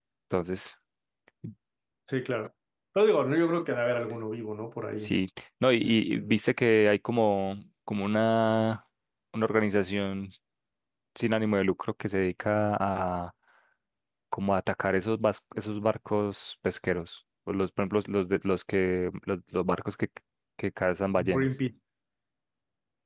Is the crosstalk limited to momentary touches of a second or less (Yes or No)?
Yes